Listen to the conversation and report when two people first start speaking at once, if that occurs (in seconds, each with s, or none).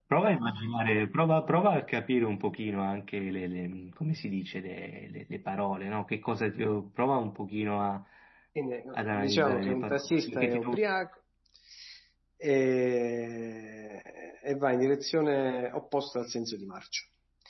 8.9 s